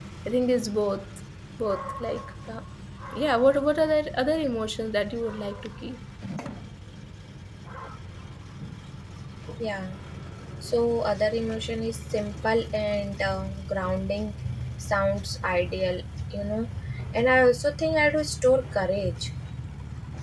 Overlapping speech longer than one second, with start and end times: none

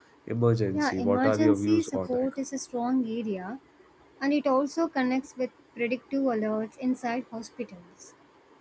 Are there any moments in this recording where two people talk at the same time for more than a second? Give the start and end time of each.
0.7-2.3

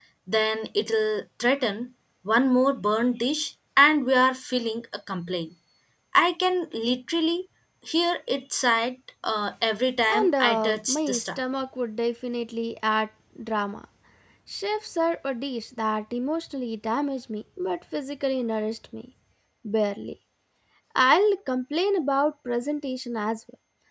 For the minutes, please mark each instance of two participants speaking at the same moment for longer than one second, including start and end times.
10.1-11.4

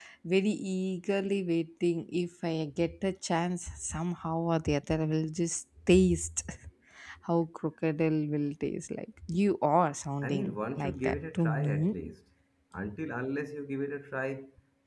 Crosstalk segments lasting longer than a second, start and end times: 10.2-12.0

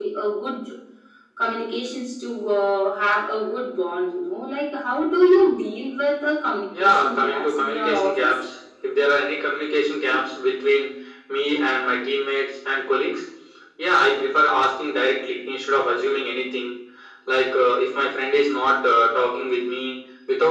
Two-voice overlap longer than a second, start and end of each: 6.8-8.3

